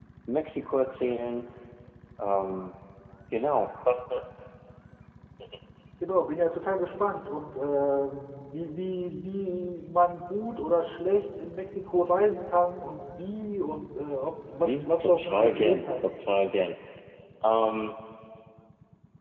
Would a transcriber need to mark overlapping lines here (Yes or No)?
Yes